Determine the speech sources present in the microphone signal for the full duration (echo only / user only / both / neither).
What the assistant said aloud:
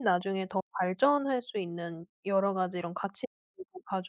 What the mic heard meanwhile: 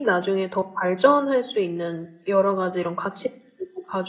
echo only